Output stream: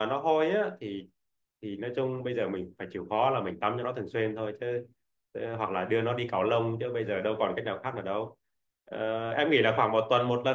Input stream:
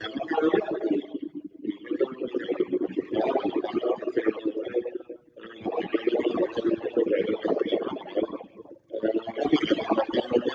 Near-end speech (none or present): none